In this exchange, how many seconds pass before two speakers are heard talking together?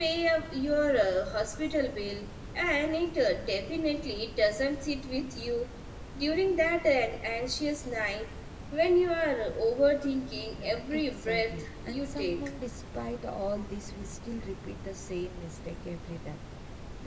10.6 s

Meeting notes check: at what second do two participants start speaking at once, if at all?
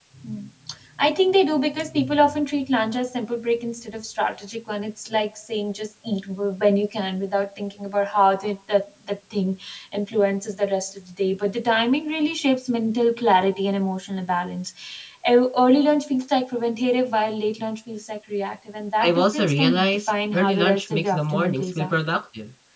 19.0 s

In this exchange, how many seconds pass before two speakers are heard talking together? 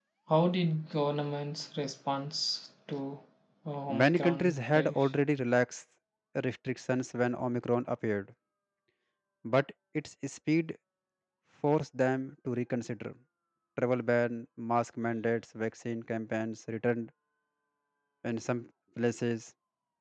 3.9 s

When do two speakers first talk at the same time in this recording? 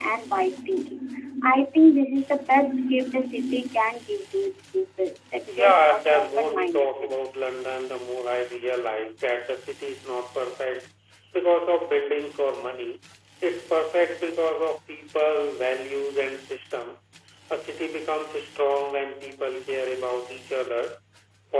5.5 s

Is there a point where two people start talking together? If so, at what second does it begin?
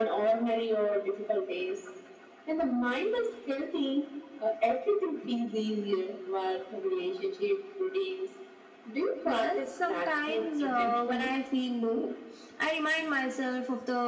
9.2 s

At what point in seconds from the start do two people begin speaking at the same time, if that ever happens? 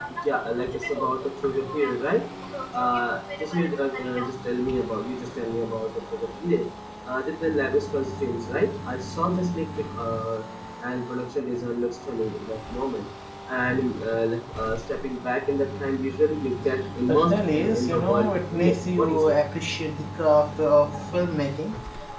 17.1 s

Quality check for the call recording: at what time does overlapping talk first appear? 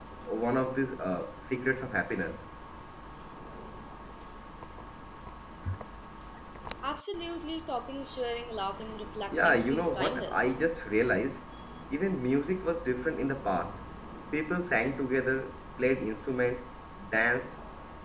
9.3 s

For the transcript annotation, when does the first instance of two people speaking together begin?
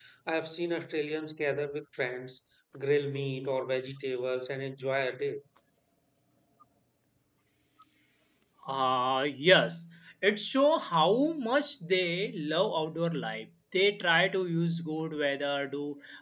none

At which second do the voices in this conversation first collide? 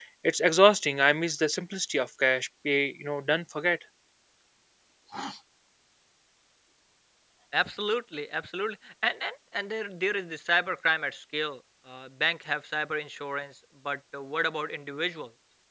none

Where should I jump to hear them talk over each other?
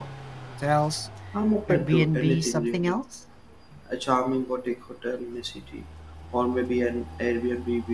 1.7 s

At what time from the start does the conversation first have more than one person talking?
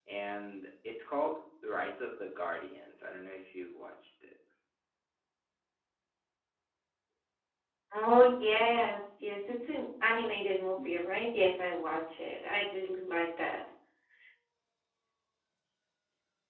none

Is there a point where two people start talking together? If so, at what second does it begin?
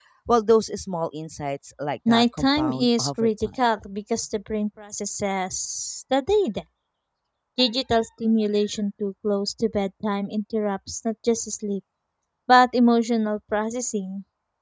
2.0 s

